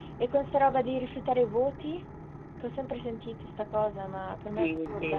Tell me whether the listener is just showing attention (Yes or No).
No